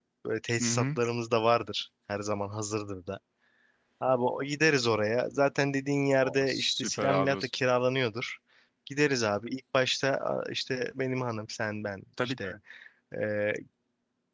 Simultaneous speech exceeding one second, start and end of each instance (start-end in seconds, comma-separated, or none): 6.2-7.5